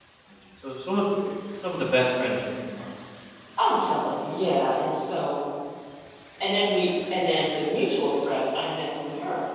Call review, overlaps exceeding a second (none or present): none